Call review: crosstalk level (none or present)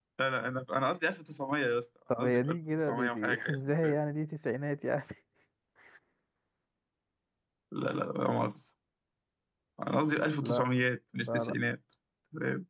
present